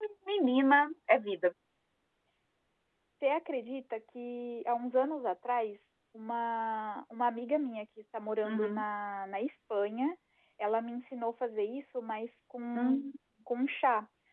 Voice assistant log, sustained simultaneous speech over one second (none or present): none